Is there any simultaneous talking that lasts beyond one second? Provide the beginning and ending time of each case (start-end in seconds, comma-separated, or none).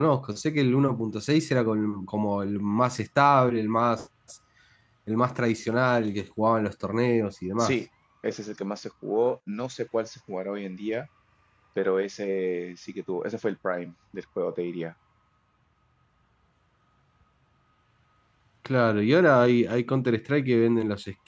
none